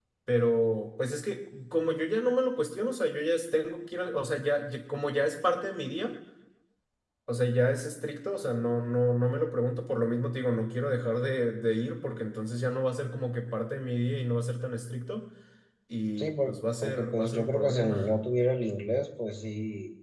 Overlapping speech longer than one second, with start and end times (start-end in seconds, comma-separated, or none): 16.2-18.1